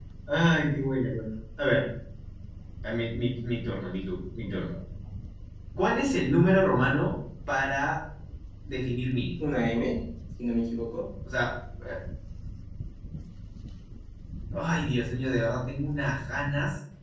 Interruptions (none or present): none